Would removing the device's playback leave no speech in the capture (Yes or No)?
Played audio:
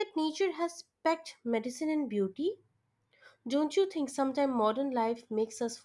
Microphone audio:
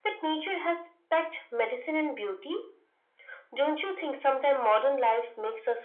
Yes